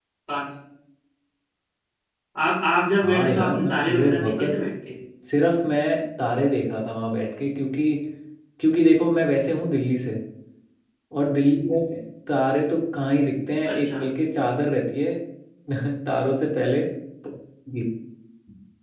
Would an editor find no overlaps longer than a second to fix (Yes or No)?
No